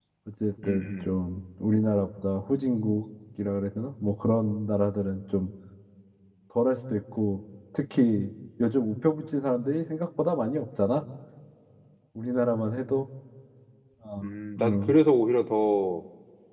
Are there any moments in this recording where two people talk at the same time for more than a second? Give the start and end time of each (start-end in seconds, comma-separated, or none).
none